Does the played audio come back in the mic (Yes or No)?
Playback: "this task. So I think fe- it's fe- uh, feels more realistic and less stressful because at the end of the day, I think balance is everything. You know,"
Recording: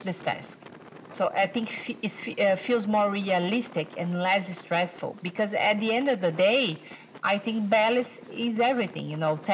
Yes